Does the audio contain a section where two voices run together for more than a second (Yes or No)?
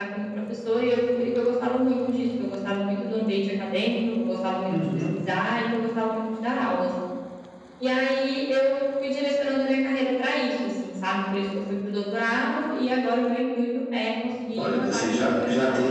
Yes